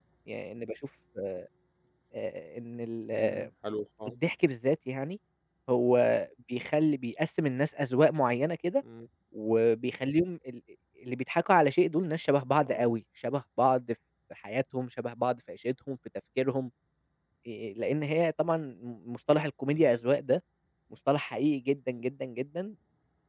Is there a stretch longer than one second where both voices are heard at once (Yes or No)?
No